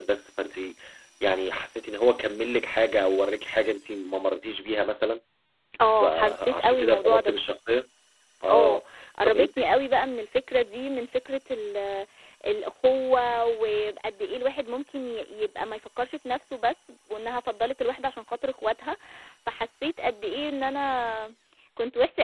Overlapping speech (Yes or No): Yes